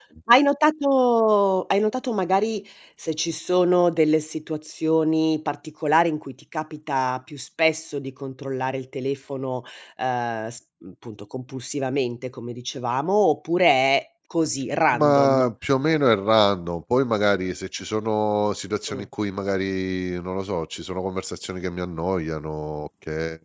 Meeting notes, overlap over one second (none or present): none